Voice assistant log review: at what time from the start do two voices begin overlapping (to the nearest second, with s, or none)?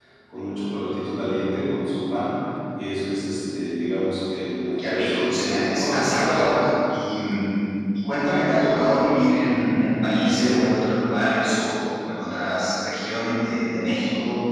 5 s